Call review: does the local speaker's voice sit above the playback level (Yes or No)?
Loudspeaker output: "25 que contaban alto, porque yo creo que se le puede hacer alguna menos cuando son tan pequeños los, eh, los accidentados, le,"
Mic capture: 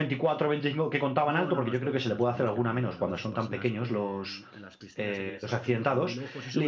No